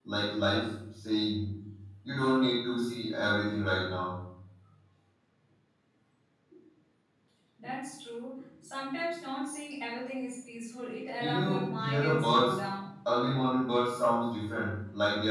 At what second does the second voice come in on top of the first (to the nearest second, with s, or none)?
11 s